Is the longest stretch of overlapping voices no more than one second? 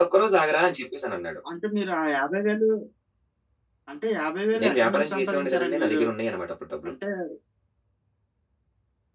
No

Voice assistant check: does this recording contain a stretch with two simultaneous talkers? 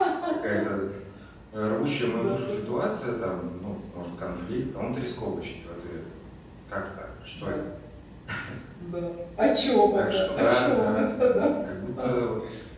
Yes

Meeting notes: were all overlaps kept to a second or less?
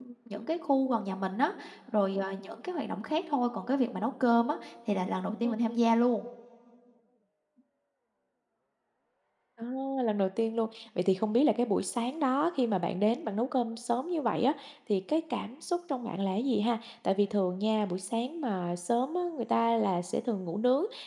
Yes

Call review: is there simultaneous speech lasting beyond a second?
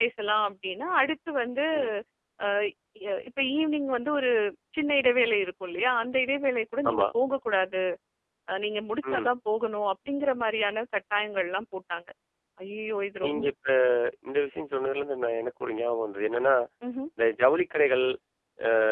No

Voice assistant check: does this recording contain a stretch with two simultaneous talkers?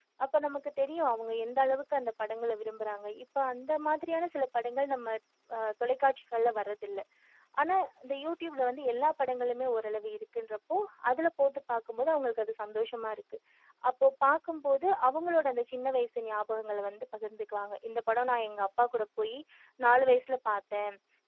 No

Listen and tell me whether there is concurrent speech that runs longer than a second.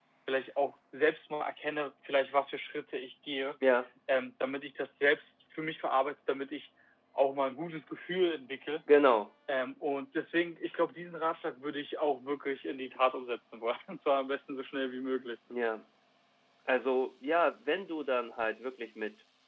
No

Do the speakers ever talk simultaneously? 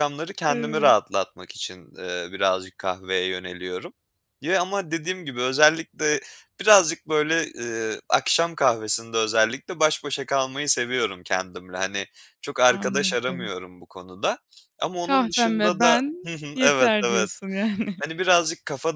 Yes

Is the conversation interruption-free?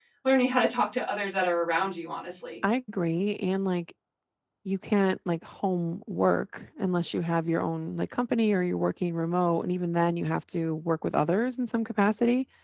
Yes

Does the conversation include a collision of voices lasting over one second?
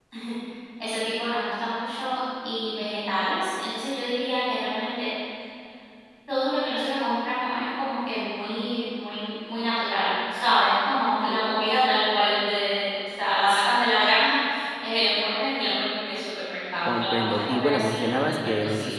Yes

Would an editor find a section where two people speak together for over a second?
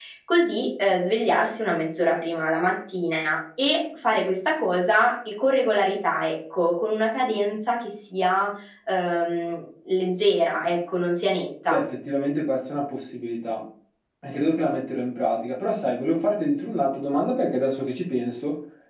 No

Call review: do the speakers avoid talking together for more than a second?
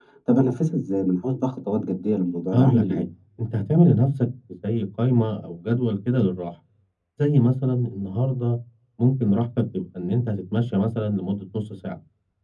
Yes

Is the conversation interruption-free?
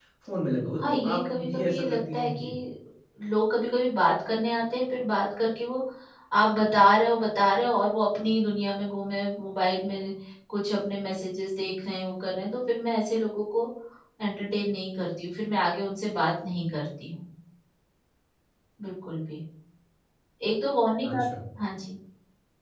No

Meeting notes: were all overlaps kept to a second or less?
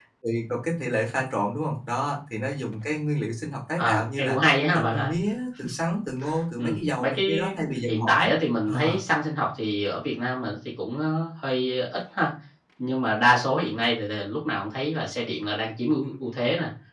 No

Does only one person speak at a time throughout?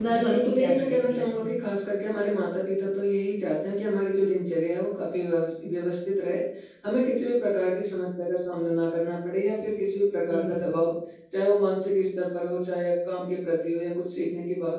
No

